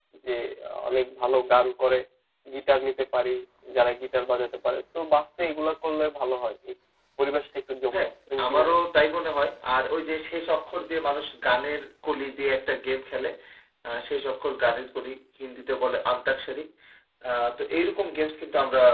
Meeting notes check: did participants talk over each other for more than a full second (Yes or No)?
No